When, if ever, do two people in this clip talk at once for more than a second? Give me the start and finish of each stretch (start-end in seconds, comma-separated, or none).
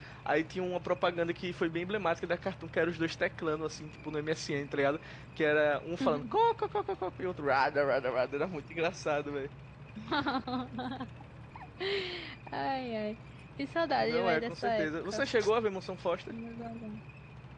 14.0-15.2